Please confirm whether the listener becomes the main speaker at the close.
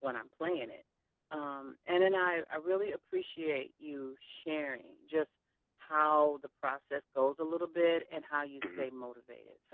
No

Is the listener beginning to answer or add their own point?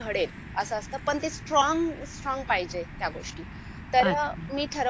No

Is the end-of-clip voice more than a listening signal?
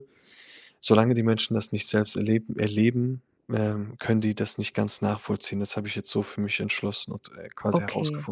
Yes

